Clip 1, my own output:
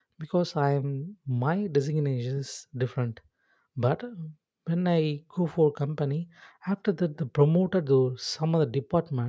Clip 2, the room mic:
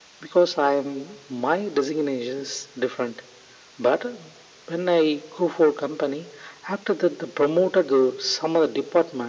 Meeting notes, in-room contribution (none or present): none